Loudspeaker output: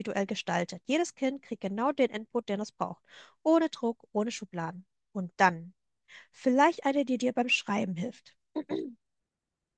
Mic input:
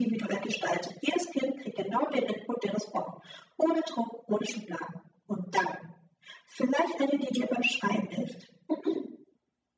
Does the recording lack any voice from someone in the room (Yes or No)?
Yes